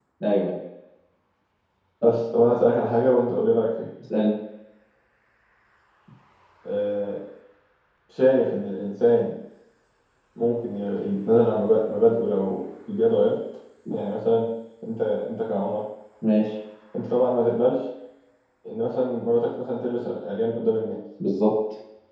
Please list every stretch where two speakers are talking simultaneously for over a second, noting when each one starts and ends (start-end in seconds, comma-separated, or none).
none